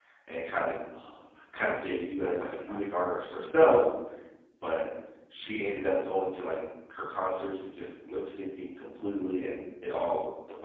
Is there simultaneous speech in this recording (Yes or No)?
Yes